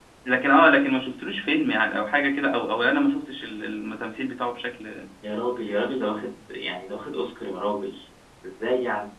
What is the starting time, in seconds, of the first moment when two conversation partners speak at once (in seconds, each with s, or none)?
none